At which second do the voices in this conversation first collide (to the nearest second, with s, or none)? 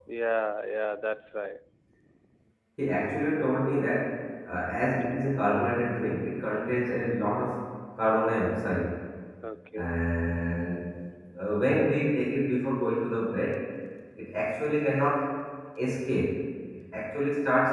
none